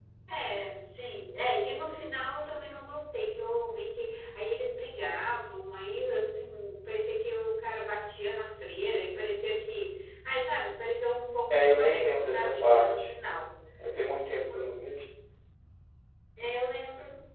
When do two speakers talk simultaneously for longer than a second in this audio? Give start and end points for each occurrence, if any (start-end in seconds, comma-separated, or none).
11.5-13.1